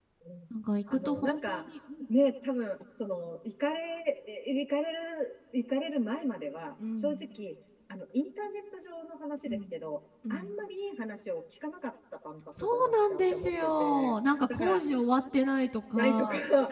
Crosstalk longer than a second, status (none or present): present